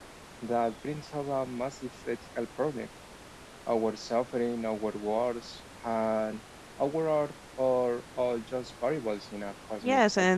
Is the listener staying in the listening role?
No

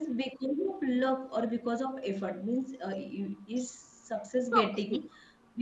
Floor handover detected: No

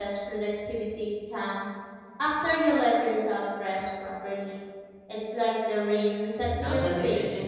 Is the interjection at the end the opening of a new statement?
Yes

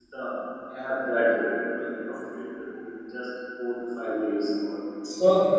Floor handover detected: Yes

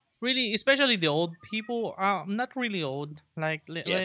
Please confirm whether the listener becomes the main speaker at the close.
No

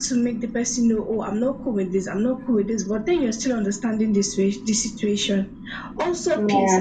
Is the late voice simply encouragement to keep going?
Yes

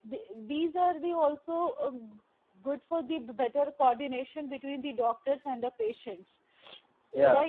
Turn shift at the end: Yes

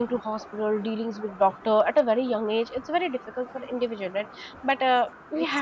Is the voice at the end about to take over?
No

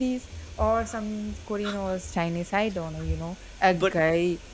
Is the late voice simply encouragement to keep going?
Yes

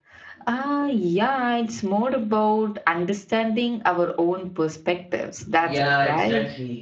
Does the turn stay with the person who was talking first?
No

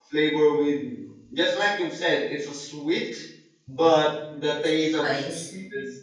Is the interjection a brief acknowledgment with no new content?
Yes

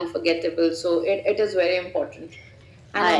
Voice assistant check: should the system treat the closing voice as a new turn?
No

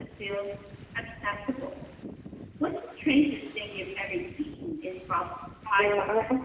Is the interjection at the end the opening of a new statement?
Yes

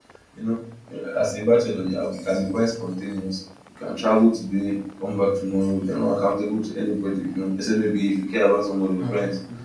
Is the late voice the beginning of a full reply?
No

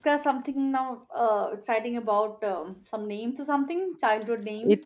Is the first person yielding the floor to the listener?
Yes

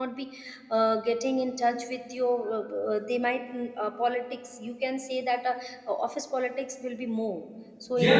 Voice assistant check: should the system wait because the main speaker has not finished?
Yes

